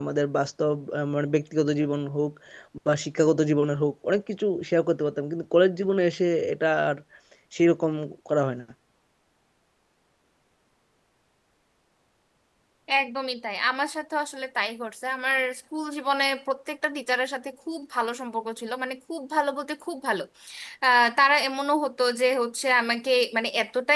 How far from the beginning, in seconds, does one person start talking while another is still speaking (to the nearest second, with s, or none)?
none